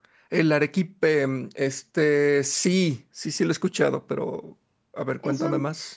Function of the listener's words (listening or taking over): taking over